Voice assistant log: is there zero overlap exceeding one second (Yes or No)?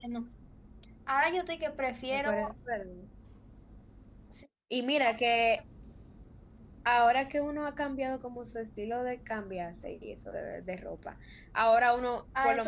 Yes